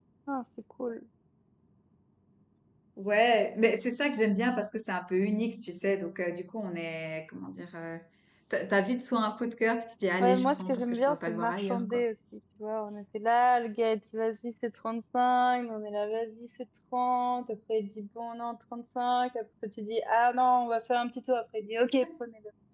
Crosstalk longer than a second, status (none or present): present